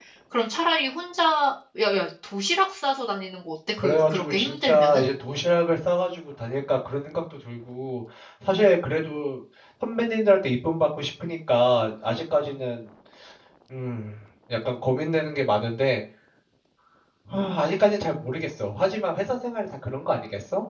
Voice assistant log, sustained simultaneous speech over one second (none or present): present